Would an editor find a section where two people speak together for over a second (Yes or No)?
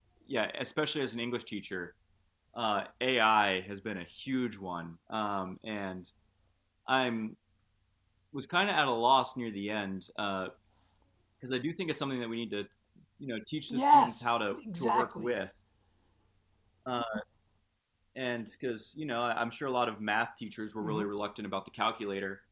Yes